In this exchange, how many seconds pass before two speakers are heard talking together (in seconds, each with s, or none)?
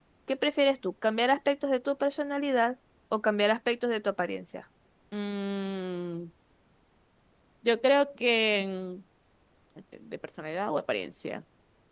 none